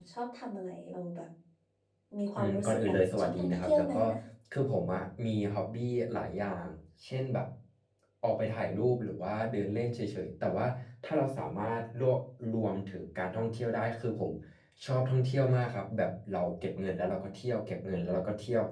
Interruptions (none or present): present